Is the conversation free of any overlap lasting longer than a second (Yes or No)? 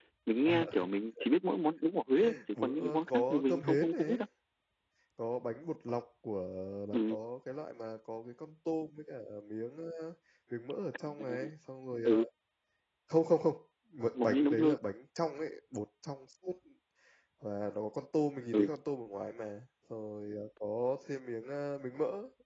No